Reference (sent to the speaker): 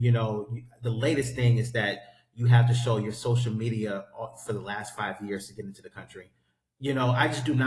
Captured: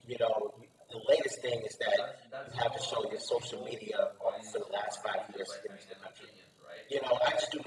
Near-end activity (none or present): present